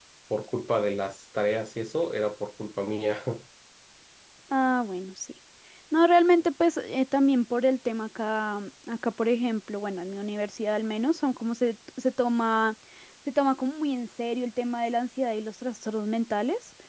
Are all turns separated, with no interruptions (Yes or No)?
Yes